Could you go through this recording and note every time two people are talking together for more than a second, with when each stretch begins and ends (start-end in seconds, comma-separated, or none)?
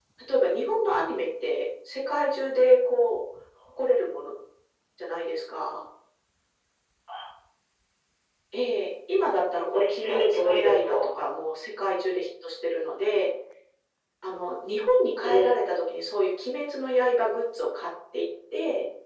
9.7-11.0